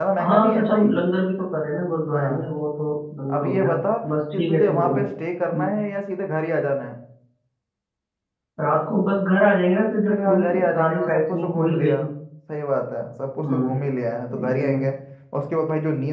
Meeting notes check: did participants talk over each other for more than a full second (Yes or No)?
Yes